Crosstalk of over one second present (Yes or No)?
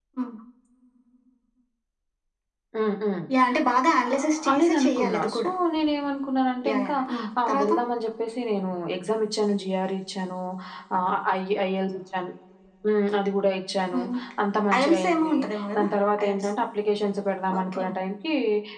Yes